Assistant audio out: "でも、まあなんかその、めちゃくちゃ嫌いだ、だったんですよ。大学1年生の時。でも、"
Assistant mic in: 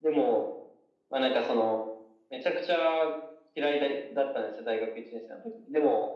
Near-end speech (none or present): none